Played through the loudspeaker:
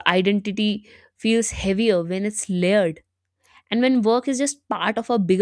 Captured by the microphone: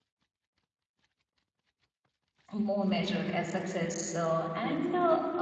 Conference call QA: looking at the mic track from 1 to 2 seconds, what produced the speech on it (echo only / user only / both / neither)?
neither